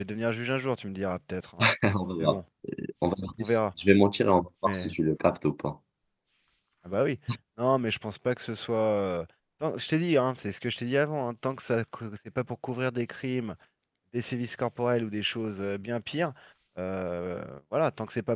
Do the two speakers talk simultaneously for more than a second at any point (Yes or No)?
No